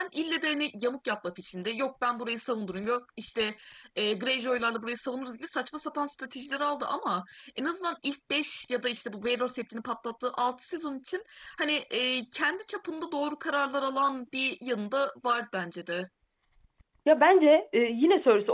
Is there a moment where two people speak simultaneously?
No

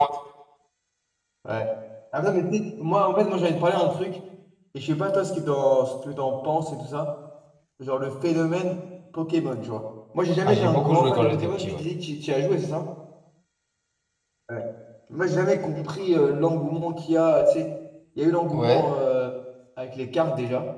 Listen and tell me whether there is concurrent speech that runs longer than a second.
Yes, from 10.4 s

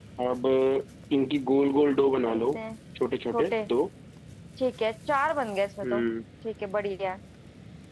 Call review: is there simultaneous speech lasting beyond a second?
No

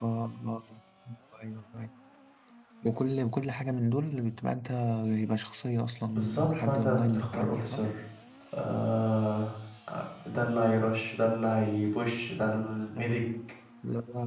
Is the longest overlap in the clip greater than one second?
Yes, from 6.1 s

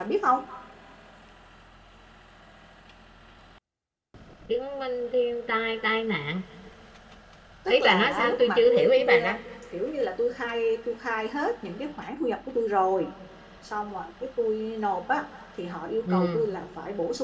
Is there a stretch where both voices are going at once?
Yes, from 7.7 s

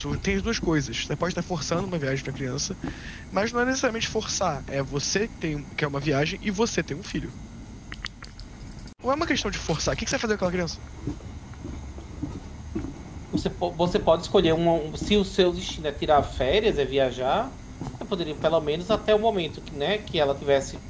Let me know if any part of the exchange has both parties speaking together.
No

